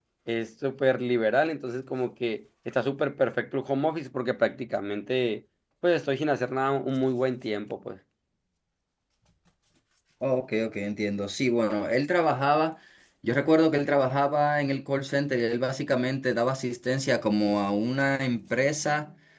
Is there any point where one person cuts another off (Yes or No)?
No